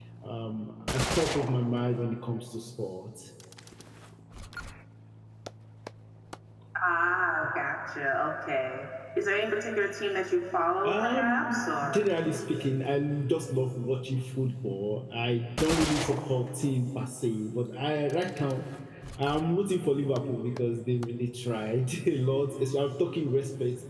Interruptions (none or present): present